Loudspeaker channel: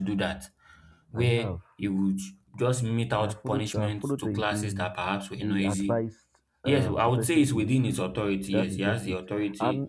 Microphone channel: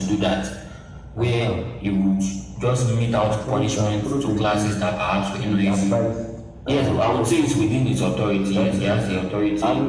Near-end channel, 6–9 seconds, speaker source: echo only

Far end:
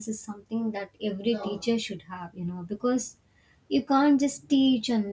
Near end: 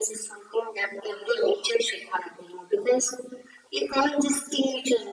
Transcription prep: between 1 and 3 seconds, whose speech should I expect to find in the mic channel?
echo only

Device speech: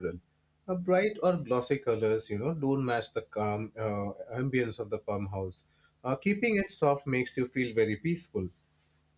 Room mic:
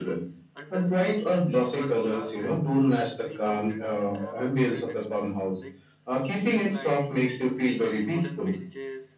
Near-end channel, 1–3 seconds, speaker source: both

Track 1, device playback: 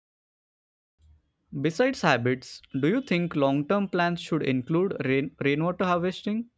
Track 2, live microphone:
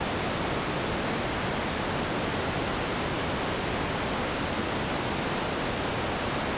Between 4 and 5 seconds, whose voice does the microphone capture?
neither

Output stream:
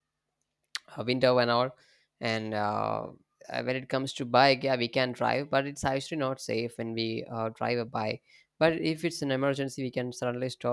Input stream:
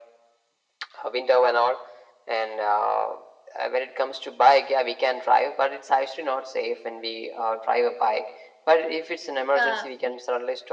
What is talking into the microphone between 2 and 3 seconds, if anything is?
echo only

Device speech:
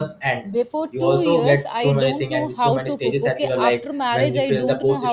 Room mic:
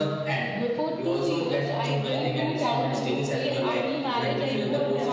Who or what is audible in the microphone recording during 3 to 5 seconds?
both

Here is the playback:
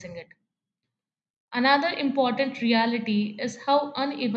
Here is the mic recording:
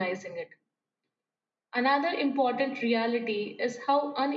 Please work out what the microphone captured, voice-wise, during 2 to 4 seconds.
echo only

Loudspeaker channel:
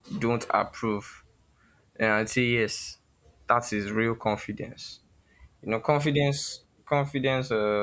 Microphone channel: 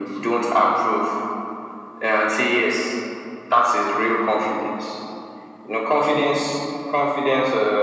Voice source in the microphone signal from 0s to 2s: echo only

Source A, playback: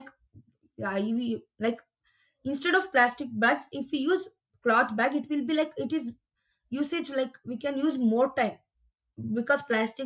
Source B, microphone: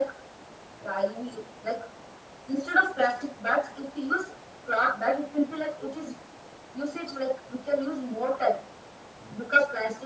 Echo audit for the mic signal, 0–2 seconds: echo only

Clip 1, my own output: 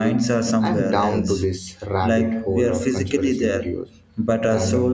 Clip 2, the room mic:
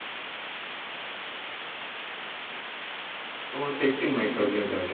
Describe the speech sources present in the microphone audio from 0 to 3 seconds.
neither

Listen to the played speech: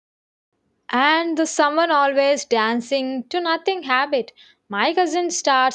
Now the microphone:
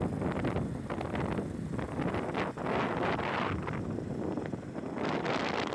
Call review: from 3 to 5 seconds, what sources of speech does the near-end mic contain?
neither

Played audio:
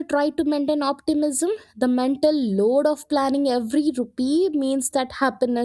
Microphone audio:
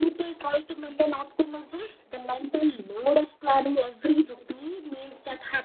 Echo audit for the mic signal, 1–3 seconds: echo only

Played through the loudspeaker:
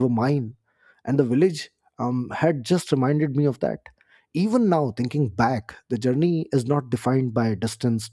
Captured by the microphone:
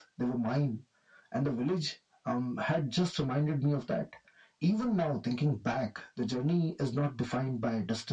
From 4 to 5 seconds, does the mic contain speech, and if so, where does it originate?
echo only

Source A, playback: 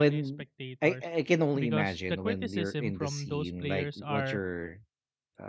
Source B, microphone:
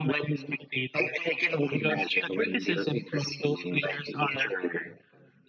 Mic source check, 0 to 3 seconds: echo only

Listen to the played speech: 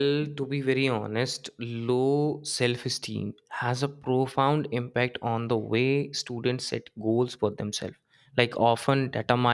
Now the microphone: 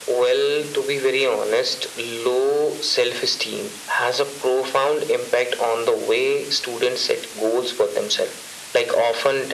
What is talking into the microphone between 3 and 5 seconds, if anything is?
echo only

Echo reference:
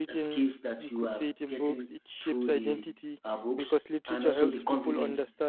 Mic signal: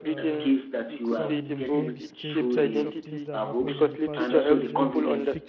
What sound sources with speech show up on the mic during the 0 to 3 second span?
both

